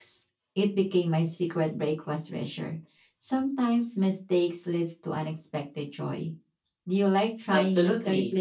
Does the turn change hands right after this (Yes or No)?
Yes